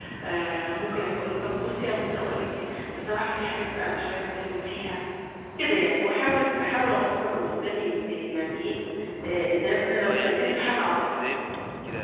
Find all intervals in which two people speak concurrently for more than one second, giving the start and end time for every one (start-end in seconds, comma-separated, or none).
10.1-11.3